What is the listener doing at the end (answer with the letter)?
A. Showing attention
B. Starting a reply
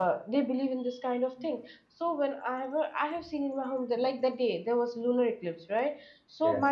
A